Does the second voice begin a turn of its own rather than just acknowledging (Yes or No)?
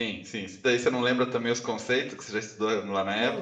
Yes